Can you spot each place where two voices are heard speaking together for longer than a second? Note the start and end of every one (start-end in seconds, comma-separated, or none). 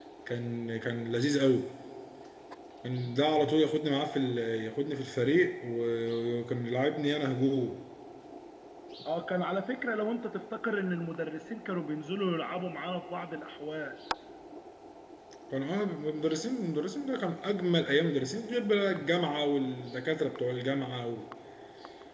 none